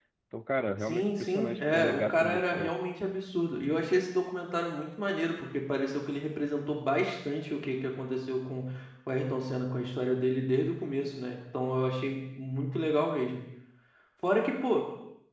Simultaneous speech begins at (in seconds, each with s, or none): 0.8 s